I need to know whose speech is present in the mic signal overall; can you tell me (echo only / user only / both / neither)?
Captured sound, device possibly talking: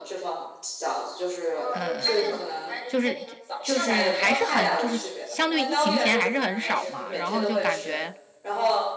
both